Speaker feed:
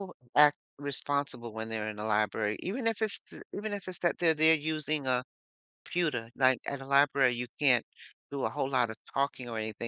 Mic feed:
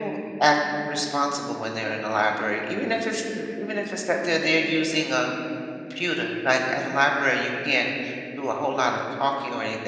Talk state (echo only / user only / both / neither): echo only